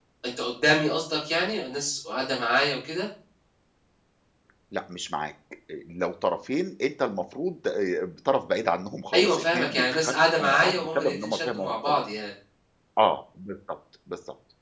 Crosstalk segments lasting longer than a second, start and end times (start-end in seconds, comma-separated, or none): 9.1-12.0